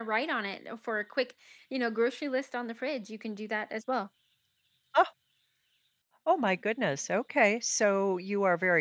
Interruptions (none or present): none